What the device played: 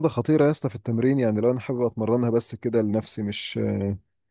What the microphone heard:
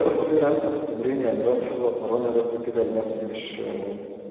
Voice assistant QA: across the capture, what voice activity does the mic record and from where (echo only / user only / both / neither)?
echo only